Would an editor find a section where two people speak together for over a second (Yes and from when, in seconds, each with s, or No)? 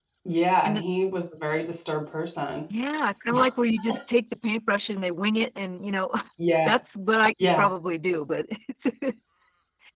No